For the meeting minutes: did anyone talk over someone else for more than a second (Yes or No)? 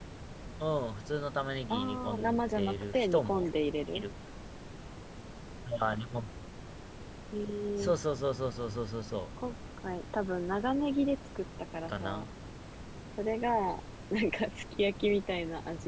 Yes